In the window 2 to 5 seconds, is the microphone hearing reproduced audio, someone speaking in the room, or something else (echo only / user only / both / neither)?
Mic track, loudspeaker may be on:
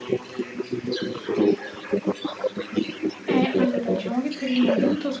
both